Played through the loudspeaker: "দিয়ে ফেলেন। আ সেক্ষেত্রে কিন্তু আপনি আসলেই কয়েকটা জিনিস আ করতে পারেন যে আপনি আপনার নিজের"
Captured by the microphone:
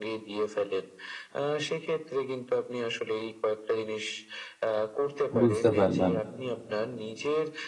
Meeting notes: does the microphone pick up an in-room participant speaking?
Yes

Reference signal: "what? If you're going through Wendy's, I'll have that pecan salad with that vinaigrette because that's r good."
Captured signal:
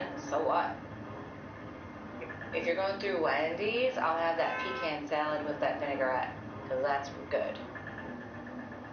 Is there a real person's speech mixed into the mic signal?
No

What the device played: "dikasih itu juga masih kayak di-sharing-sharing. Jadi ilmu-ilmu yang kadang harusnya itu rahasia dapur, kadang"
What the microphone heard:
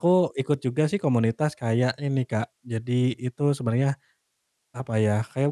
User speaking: Yes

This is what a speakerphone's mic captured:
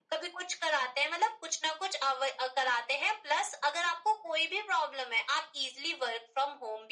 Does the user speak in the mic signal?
No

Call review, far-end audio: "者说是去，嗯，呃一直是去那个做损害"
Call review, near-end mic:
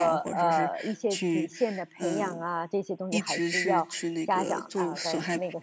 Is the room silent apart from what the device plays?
No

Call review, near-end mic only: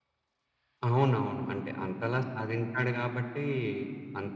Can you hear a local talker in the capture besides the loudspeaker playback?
No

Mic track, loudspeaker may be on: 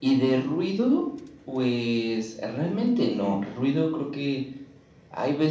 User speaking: No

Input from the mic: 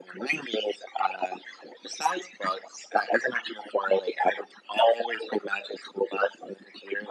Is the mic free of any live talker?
Yes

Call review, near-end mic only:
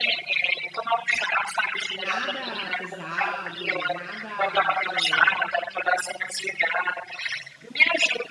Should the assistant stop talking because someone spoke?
Yes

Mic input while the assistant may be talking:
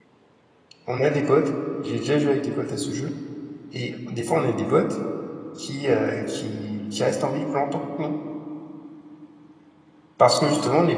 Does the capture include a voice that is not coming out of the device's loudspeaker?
Yes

